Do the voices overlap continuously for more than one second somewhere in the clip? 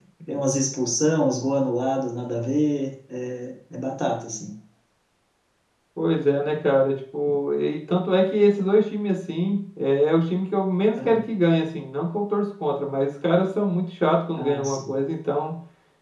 No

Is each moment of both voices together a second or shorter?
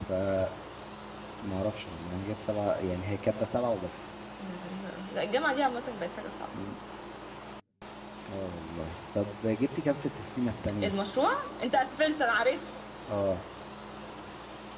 Yes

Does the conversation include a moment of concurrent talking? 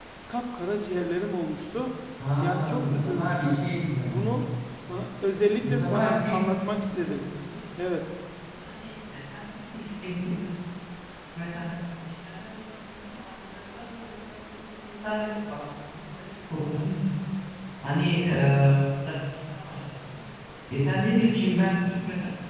Yes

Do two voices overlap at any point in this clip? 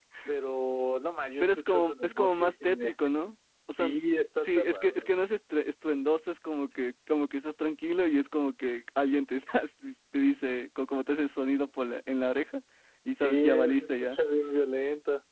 Yes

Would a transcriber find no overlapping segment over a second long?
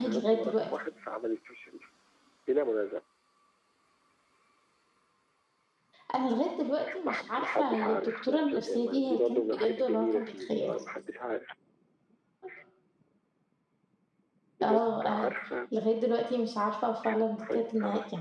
No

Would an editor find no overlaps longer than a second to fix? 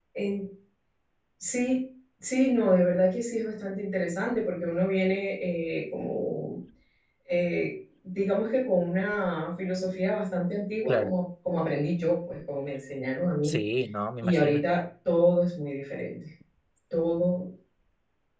Yes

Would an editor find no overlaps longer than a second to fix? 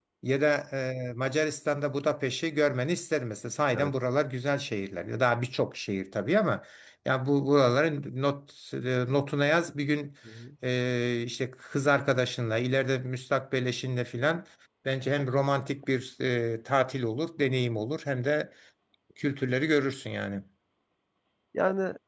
Yes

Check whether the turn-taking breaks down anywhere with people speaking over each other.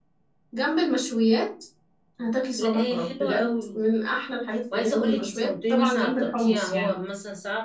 Yes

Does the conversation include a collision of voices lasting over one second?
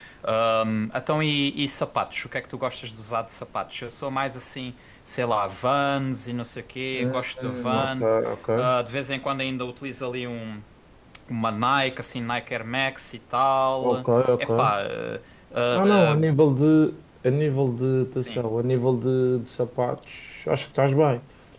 Yes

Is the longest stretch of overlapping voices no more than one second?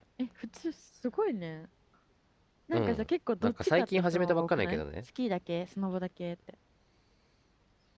No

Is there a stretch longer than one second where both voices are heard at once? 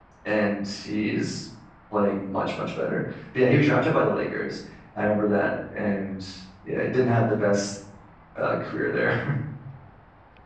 No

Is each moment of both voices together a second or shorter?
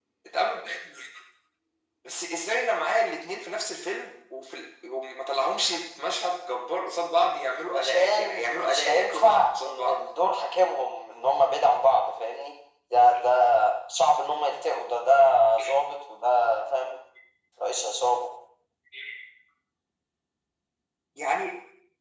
No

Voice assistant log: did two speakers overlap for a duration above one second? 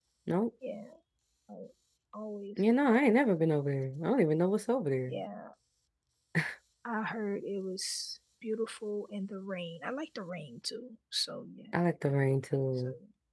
No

